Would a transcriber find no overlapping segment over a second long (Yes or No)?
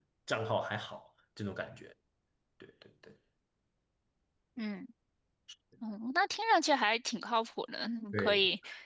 Yes